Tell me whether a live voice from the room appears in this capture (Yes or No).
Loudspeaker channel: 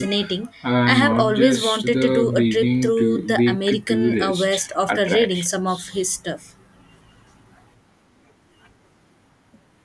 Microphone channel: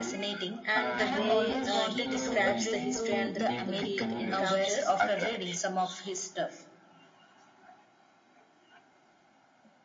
Yes